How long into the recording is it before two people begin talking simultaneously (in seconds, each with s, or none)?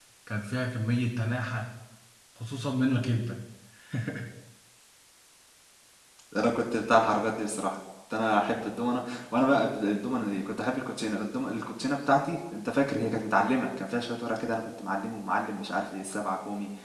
none